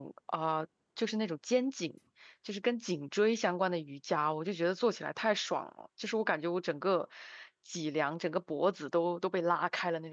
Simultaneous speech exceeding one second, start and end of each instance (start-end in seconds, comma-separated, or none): none